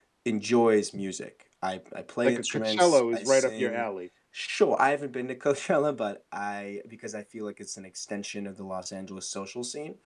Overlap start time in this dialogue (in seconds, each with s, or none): 2.2 s